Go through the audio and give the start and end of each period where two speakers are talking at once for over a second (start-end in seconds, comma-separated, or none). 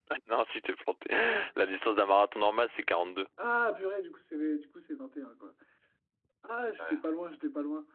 none